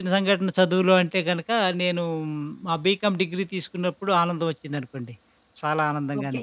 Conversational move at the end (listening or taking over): taking over